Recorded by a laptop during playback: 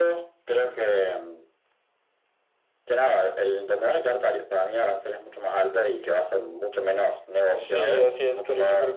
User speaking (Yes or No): Yes